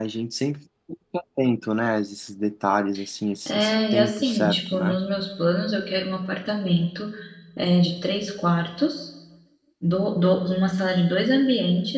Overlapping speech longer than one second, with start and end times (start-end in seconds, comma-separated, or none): 3.5-5.0